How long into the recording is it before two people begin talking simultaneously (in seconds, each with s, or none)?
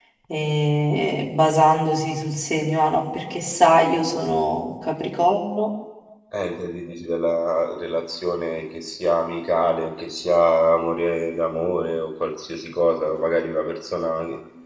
none